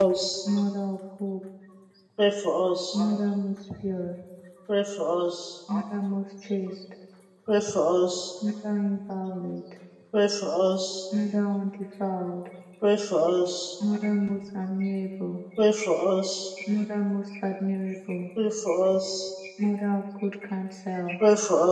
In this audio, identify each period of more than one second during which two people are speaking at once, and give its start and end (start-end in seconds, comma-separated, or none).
none